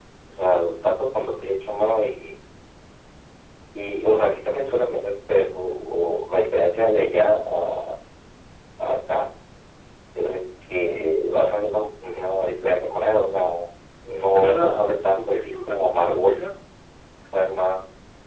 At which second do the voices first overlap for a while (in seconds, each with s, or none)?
14.2 s